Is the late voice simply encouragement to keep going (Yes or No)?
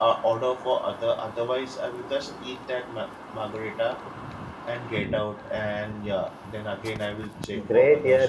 No